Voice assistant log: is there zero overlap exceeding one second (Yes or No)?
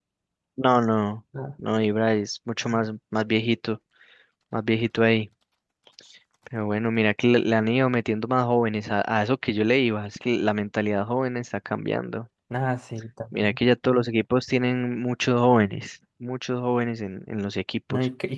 Yes